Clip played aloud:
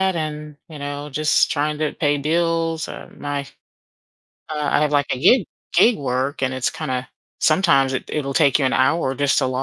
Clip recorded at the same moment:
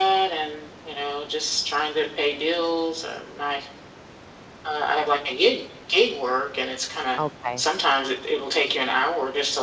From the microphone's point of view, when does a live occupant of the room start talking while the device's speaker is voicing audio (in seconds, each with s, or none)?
7.2 s